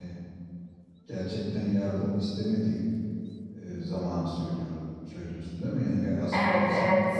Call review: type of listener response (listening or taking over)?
taking over